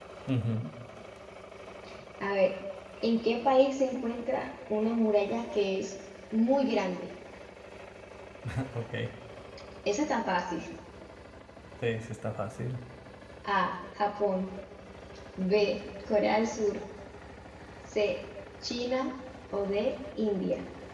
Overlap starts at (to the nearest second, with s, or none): none